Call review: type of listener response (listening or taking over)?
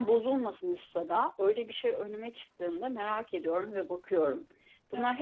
listening